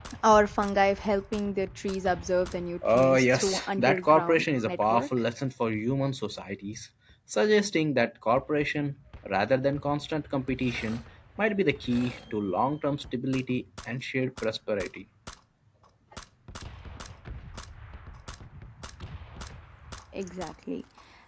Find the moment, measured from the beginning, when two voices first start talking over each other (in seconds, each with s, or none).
2.8 s